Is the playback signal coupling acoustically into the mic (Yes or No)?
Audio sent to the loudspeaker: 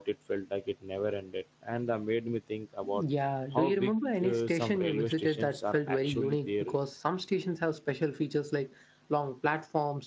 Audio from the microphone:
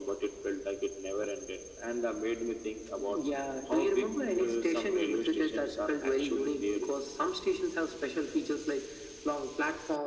Yes